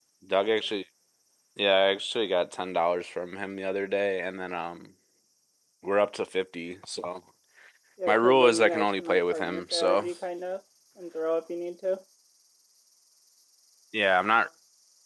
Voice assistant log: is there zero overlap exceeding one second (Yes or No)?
No